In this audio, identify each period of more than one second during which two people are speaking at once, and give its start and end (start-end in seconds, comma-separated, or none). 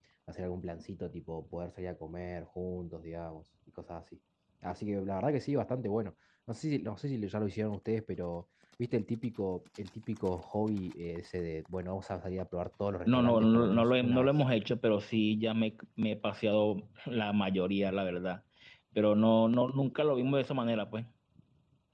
13.1-14.3